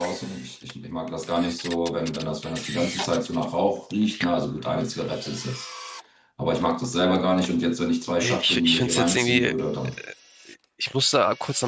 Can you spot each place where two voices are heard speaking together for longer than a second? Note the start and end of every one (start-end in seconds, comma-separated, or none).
8.2-9.5